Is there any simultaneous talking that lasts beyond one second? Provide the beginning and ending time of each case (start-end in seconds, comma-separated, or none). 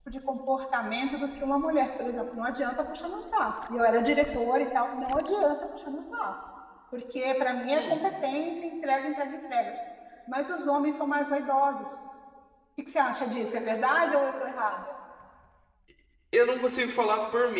none